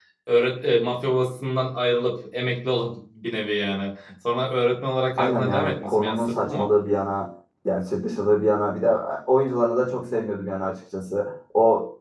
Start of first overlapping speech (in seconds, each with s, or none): 5.2 s